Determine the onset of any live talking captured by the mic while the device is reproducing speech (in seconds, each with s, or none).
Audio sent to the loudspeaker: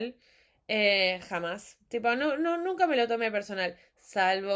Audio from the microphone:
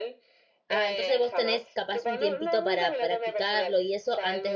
0.7 s